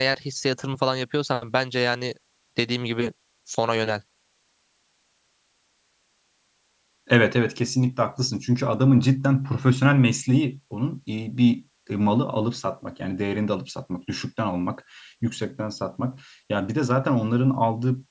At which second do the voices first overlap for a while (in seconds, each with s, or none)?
none